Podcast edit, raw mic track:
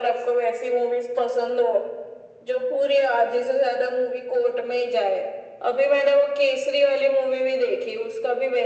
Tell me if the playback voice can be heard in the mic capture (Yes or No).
Yes